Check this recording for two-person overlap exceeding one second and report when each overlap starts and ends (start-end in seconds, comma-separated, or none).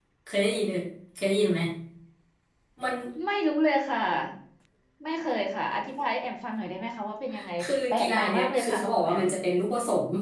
7.9-9.2